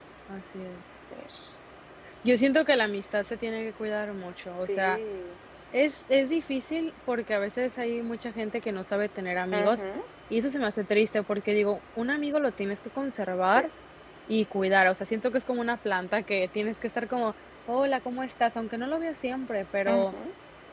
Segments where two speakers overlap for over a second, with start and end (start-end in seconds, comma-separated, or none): none